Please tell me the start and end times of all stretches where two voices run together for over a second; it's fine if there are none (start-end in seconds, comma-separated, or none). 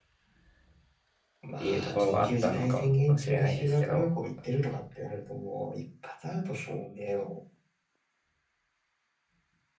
1.6-4.1